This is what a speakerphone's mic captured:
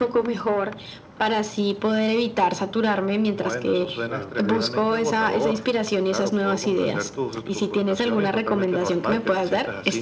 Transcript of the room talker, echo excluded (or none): claro, te